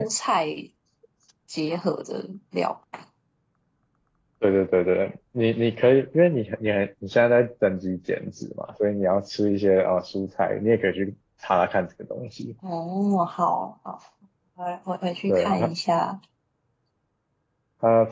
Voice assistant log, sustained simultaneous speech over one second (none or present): none